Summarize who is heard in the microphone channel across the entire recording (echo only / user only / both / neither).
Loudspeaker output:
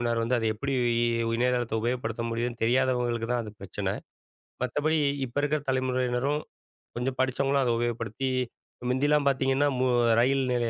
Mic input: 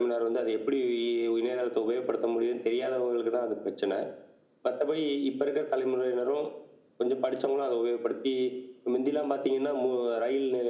echo only